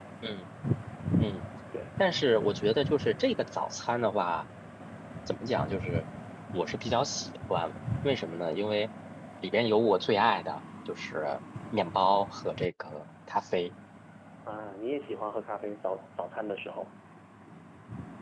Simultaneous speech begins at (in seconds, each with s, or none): none